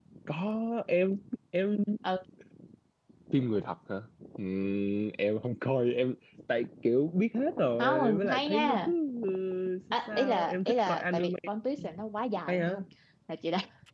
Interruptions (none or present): present